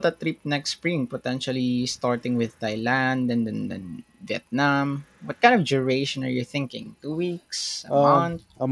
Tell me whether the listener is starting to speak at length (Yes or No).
Yes